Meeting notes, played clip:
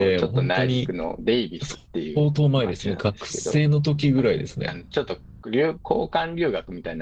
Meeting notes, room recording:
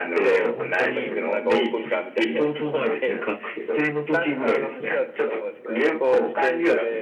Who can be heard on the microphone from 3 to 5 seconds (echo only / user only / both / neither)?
both